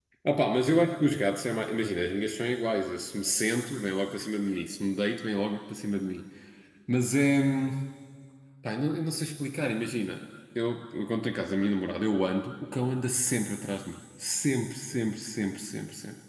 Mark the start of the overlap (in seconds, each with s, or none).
none